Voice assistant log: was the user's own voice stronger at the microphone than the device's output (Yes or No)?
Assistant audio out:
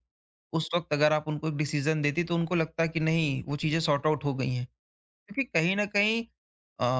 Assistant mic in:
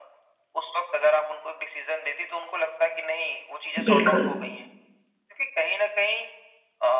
Yes